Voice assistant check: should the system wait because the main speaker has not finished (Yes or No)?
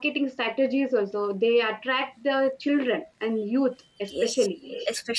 No